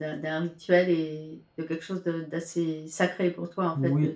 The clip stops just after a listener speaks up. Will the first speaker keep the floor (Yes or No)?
Yes